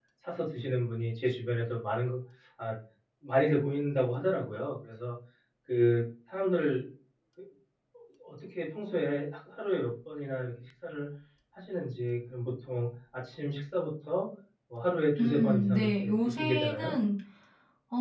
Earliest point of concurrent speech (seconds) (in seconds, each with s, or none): 15.2 s